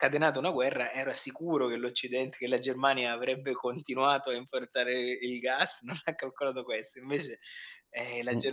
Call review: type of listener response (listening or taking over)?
listening